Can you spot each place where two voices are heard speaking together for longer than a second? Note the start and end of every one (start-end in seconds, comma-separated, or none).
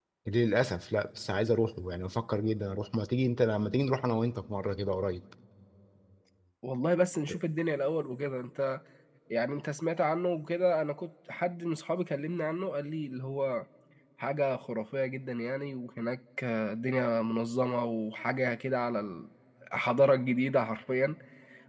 none